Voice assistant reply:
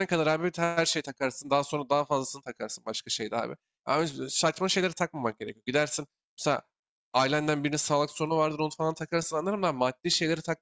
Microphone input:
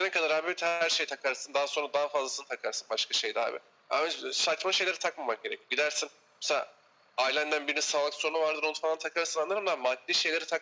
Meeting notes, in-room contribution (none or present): none